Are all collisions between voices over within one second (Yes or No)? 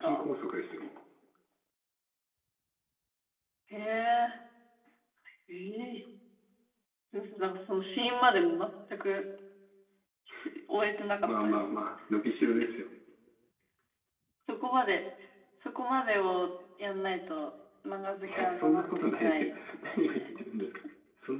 No